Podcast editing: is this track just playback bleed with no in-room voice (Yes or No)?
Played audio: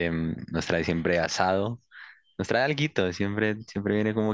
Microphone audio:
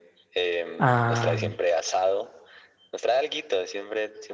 No